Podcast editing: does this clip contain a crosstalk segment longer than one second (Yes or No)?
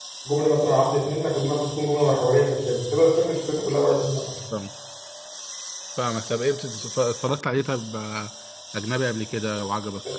No